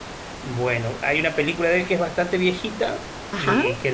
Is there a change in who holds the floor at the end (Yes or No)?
No